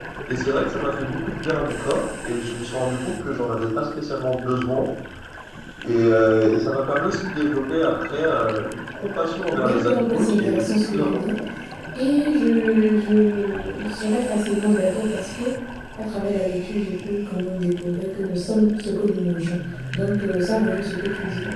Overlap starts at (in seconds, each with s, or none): 9.5 s